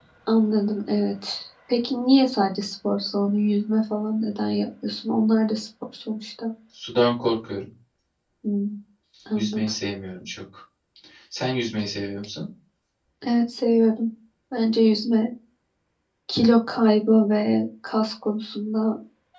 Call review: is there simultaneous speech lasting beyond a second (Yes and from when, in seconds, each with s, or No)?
No